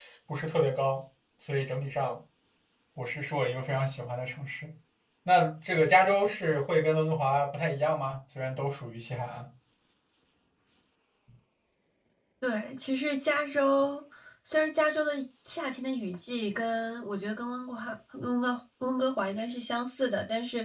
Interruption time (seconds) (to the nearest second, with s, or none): none